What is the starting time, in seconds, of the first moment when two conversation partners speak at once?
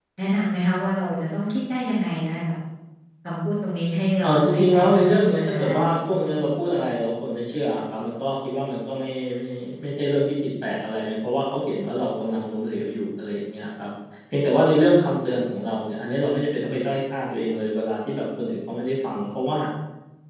4 s

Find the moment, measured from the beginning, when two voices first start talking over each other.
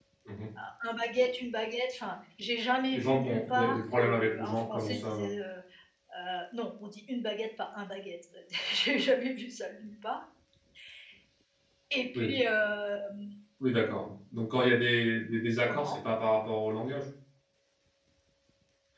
3 s

